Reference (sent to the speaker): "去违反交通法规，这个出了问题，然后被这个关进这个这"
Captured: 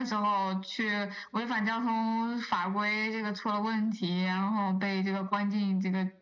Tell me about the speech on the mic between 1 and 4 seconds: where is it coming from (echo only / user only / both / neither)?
echo only